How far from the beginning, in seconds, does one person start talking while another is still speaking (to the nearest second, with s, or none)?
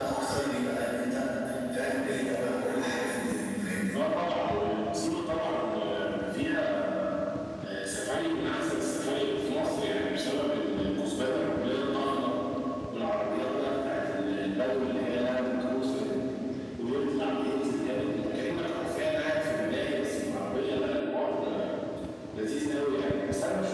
none